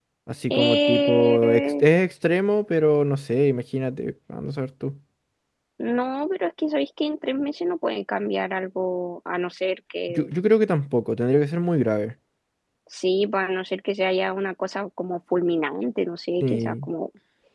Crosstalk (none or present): present